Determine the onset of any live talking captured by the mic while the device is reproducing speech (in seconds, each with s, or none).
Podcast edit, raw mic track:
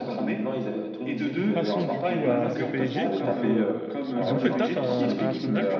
1.5 s